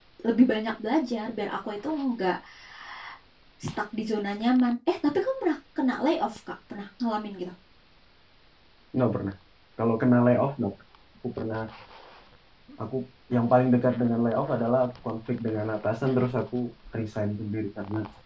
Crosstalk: none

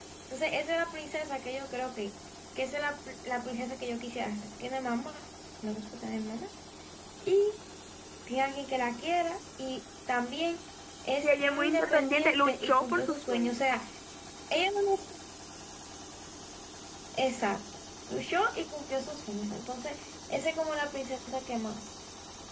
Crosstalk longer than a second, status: present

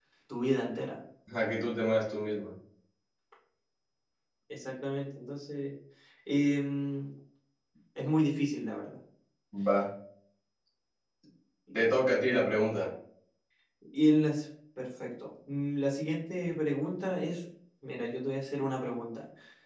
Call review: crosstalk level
none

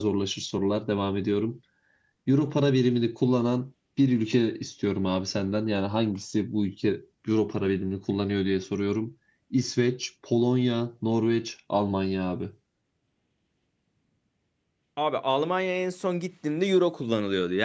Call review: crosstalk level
none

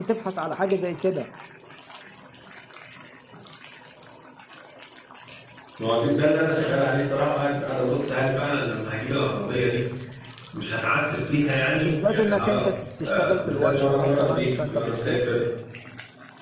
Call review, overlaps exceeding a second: present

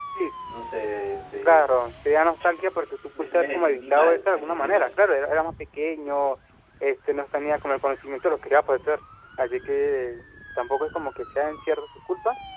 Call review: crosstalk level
present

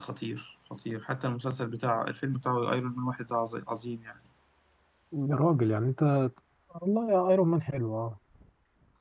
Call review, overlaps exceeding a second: none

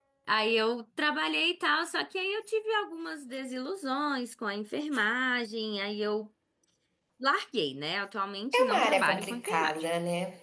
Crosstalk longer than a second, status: present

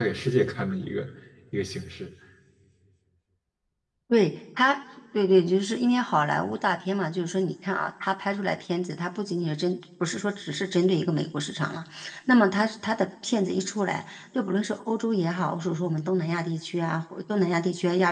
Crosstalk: none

